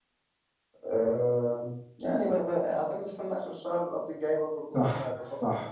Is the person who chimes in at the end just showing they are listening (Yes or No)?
No